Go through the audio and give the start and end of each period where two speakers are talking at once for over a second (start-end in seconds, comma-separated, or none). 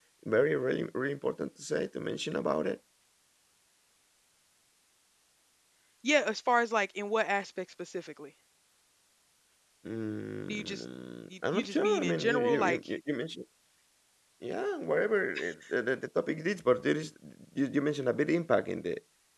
11.5-12.8